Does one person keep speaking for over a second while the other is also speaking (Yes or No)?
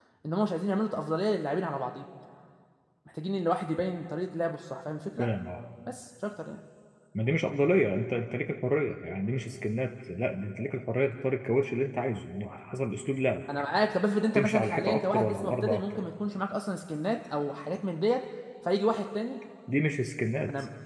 Yes